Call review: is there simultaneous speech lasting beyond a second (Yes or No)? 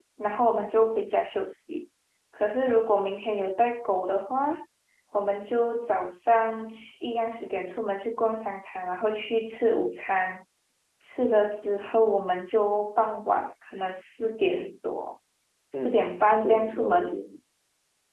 Yes